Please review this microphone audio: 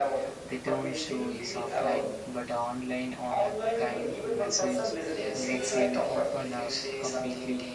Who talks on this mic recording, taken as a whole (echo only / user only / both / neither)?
both